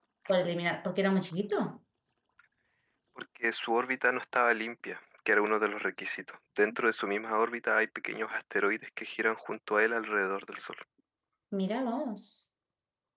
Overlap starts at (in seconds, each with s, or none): none